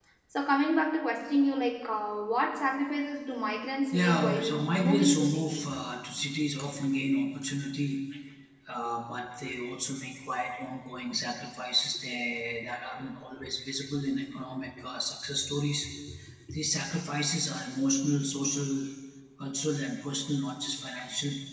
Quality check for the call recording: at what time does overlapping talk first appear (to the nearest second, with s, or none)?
4 s